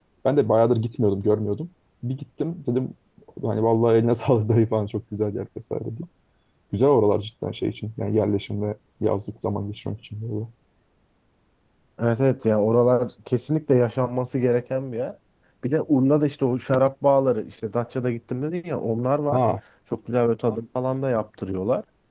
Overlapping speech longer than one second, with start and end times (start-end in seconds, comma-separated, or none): none